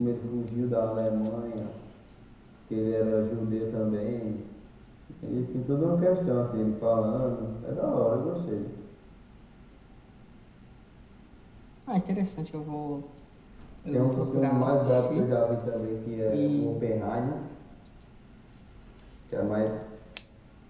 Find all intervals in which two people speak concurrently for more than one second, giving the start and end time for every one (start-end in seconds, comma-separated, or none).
13.9-15.3